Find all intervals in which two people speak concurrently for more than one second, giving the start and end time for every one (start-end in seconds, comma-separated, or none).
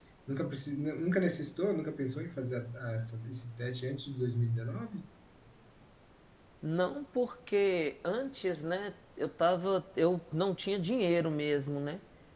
none